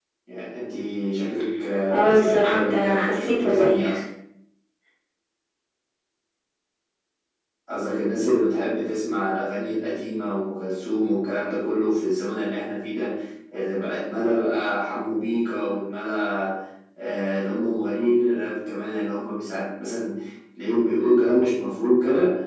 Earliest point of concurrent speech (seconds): 1.9 s

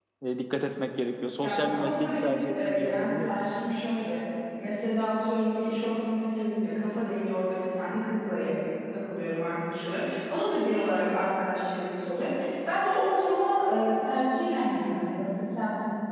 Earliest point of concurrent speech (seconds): 1.4 s

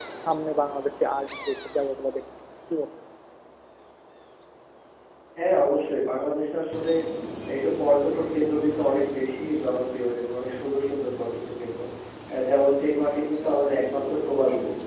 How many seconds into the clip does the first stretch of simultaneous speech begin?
none

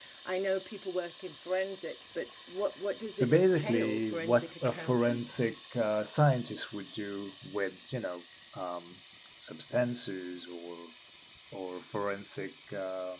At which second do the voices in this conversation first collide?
3.2 s

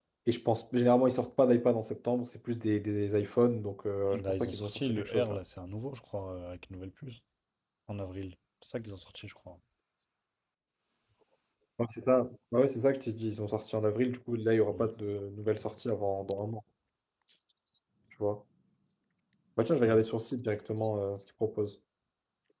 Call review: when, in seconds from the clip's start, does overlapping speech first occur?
4.1 s

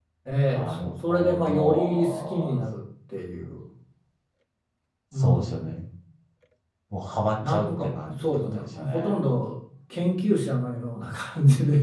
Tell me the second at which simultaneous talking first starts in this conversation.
0.5 s

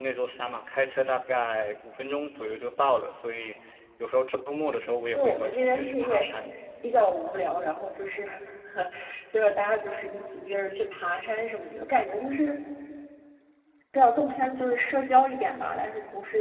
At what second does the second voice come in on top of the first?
4.7 s

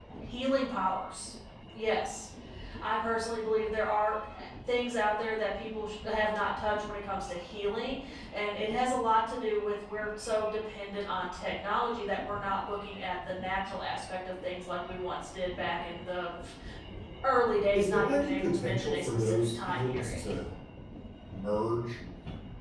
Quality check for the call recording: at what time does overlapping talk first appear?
17.8 s

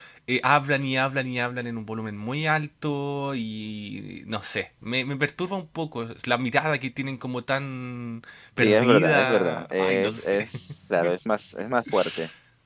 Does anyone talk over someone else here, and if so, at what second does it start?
8.6 s

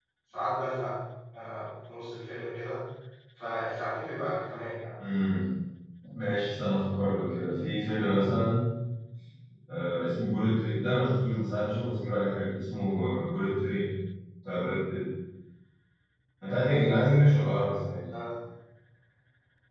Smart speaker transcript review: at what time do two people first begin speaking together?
none

